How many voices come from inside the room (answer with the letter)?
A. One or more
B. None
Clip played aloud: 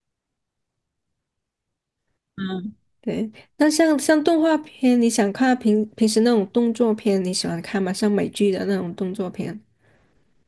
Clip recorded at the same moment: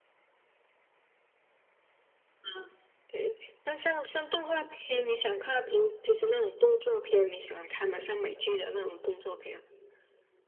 B